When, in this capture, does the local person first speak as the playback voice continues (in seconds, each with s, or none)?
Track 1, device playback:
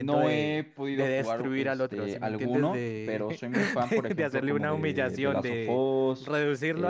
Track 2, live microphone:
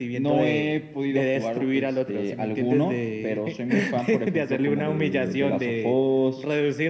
none